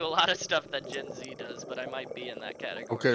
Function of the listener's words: taking over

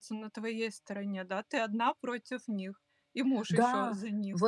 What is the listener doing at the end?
taking over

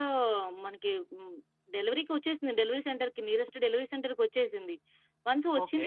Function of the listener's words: listening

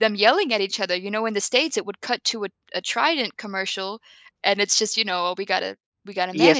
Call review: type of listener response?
taking over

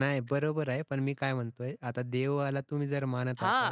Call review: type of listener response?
taking over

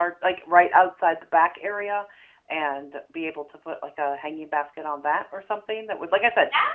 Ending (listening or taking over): taking over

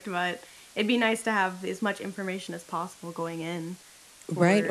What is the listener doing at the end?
taking over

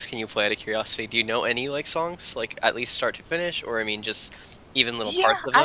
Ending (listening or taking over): taking over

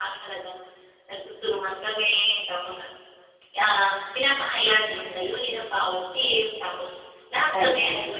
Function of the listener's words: listening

